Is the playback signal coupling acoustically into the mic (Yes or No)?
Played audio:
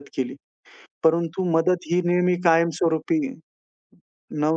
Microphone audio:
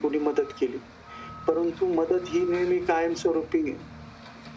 Yes